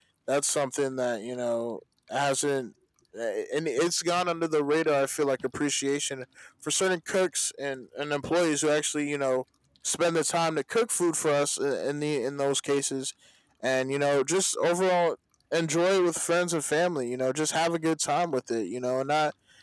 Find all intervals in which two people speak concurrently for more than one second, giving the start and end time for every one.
none

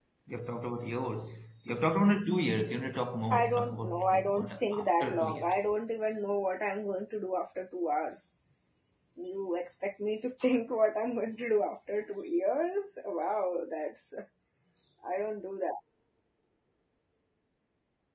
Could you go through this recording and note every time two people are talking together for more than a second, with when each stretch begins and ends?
3.3-5.6

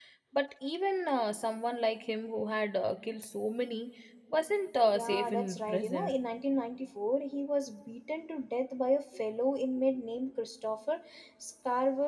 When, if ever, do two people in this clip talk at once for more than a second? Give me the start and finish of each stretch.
4.8-6.2

